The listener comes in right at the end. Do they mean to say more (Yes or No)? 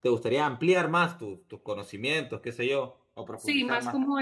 Yes